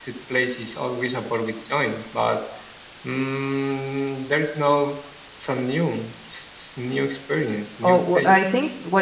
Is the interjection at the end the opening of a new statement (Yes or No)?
Yes